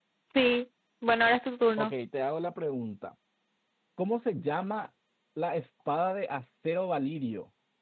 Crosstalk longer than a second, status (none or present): none